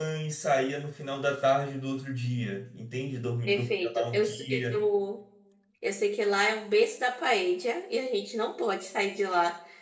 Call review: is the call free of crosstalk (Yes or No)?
No